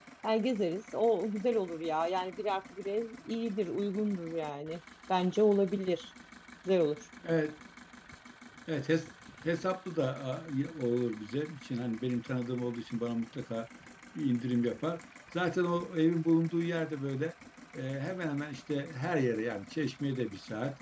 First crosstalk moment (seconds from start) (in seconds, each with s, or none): none